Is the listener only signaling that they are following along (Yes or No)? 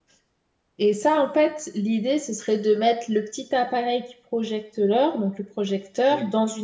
Yes